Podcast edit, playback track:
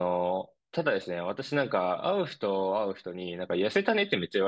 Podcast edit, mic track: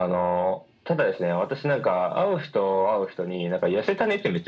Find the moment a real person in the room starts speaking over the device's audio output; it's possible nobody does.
none

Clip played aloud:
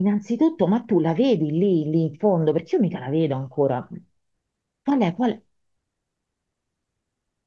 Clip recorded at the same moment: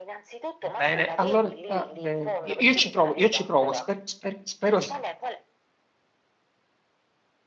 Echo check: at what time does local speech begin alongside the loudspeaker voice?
0.8 s

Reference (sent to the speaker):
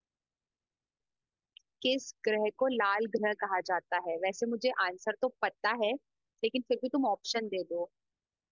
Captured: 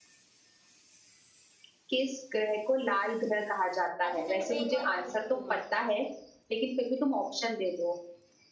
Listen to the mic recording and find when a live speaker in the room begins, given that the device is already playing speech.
4.1 s

